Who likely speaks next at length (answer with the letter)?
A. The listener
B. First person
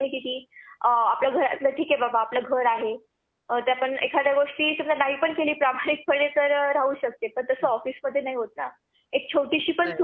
B